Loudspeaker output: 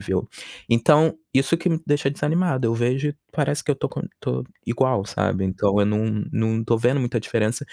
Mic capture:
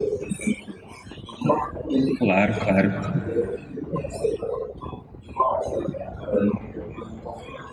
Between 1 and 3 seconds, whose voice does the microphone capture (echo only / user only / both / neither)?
both